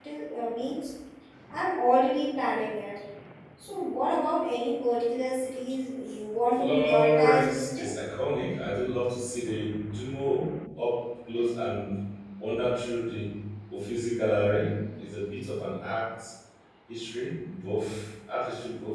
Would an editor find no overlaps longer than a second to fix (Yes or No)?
No